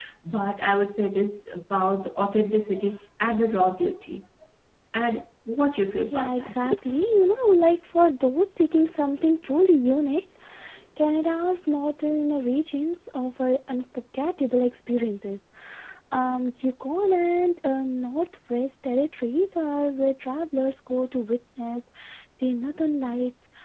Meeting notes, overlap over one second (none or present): none